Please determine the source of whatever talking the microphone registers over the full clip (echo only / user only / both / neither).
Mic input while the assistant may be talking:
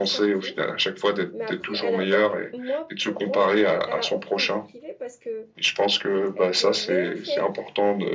both